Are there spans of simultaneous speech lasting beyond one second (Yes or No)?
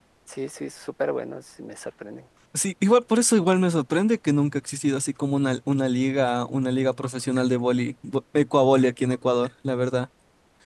No